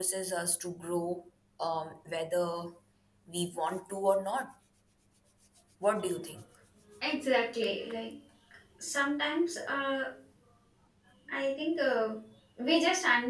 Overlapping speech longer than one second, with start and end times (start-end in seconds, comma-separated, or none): none